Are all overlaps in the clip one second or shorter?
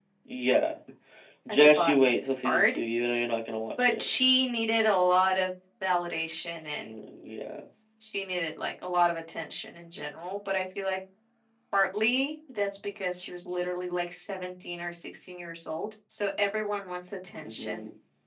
No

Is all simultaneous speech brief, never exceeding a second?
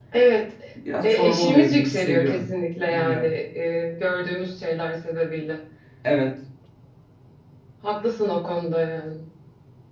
No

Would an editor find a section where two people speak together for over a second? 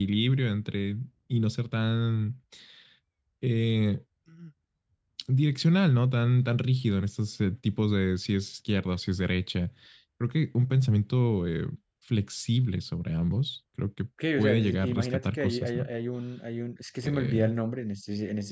Yes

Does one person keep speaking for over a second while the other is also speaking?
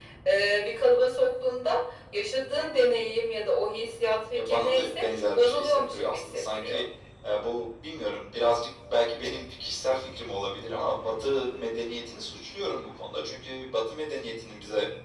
Yes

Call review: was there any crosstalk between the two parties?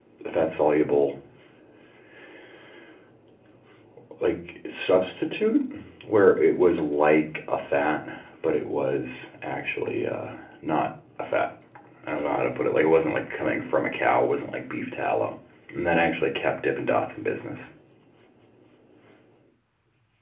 No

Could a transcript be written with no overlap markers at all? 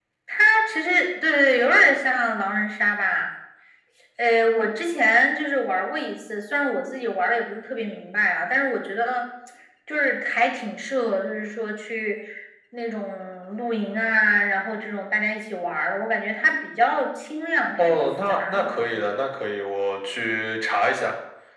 No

